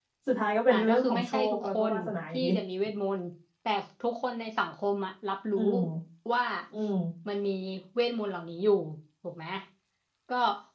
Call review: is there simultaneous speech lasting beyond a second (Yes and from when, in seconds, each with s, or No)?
Yes, from 0.7 s